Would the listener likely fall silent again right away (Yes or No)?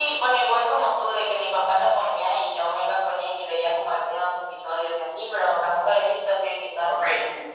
No